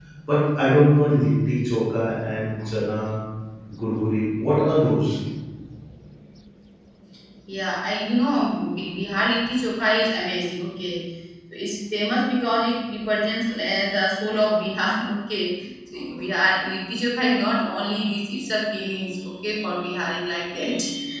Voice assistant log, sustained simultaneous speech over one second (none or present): none